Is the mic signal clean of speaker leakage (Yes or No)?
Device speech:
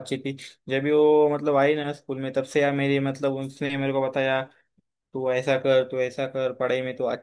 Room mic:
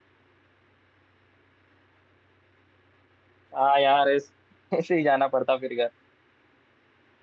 Yes